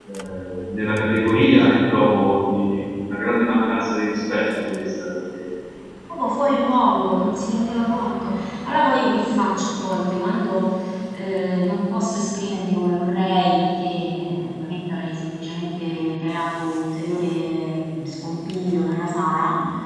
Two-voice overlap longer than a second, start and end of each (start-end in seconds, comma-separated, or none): none